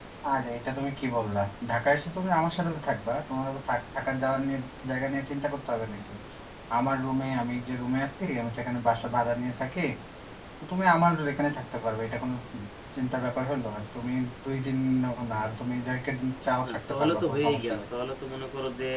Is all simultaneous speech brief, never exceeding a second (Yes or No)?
No